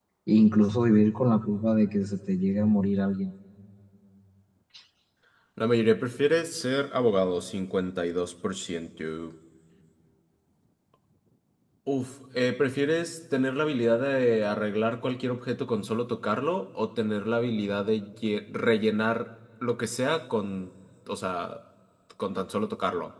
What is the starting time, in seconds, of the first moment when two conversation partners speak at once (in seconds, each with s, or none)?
none